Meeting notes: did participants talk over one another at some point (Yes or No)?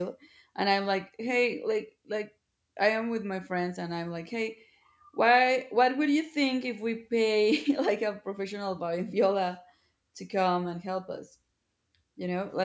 No